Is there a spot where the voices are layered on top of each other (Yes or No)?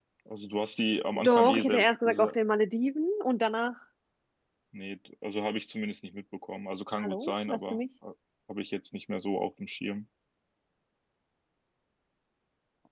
Yes